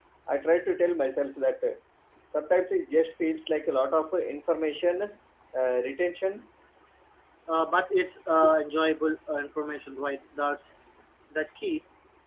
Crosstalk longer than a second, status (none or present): none